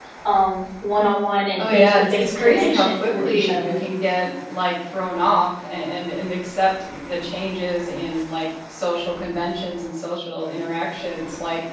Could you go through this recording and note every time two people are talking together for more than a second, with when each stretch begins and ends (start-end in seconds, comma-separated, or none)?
1.6-3.8